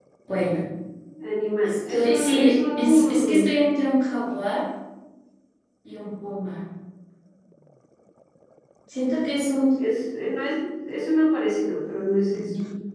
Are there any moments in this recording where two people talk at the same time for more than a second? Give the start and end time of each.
1.6-3.5

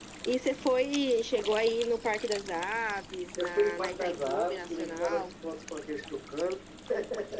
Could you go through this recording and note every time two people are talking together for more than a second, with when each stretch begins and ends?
3.4-5.3

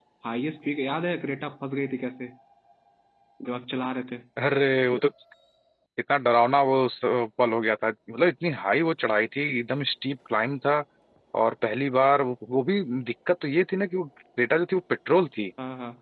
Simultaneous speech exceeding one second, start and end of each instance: none

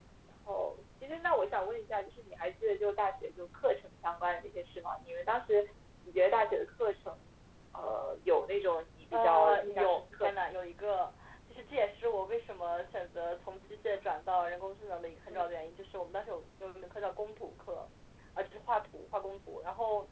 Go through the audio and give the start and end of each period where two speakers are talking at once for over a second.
9.1-10.3

